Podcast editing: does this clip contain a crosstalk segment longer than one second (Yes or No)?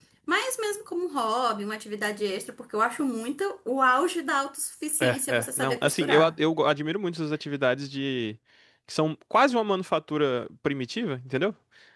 Yes